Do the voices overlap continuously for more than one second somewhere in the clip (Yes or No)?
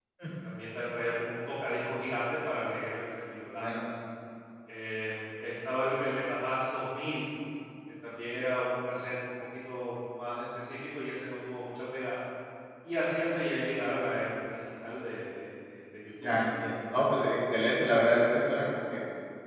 No